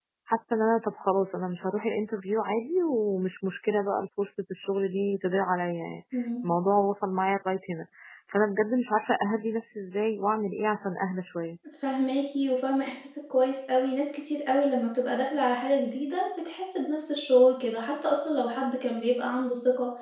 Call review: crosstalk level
none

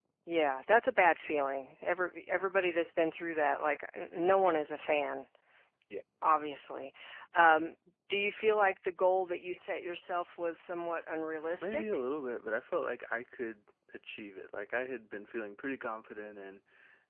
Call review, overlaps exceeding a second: none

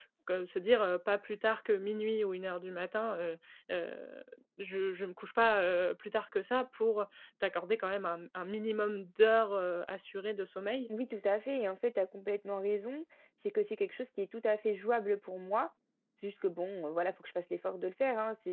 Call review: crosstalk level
none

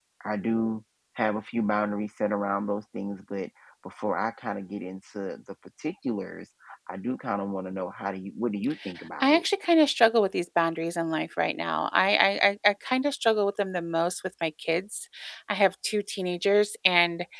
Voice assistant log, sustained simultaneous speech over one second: none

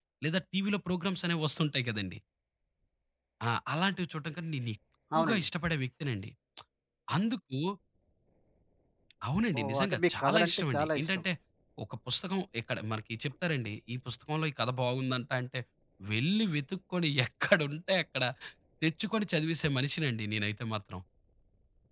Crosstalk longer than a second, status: present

